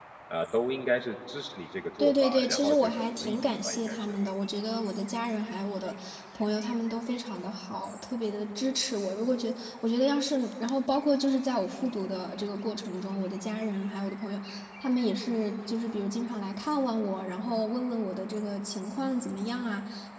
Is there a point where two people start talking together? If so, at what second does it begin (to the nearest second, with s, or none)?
2 s